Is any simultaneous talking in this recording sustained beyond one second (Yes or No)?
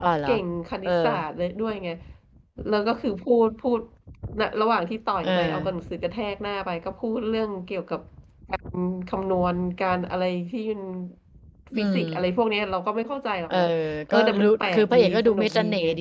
Yes